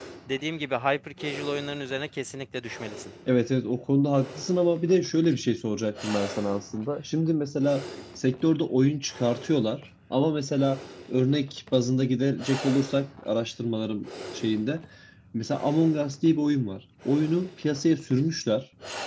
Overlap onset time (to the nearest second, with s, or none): none